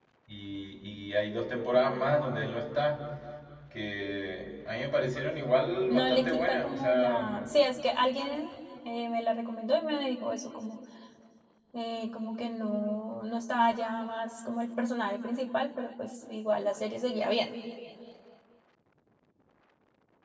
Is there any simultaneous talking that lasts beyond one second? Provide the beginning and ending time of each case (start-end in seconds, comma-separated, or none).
5.9-7.6